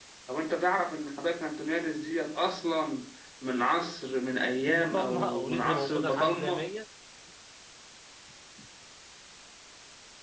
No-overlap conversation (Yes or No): No